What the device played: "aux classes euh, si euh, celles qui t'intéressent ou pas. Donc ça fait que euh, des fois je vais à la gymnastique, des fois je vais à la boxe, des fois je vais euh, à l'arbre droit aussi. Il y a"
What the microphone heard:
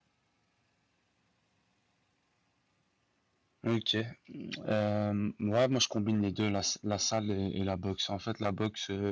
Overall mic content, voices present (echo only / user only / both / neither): user only